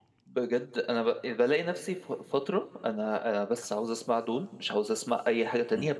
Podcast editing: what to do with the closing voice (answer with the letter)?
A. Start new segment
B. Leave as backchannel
B